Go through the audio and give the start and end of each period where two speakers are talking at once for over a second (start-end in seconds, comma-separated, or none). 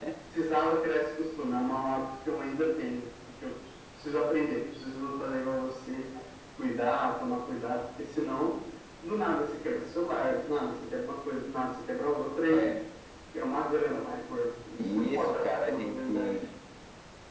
14.9-16.4